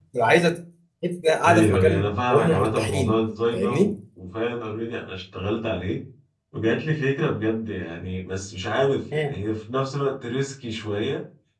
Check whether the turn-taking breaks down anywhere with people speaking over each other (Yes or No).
Yes